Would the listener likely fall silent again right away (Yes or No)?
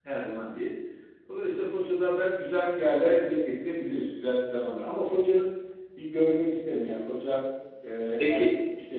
Yes